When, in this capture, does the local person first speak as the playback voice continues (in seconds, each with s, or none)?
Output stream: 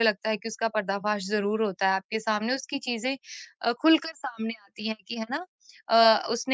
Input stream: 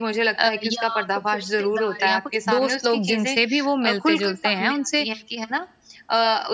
0.4 s